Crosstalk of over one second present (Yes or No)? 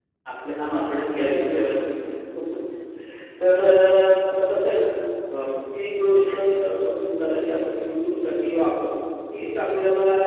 Yes